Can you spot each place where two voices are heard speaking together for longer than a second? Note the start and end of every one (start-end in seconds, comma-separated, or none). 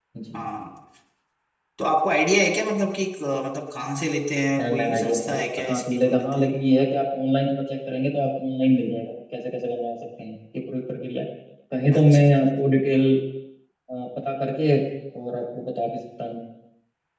4.6-6.4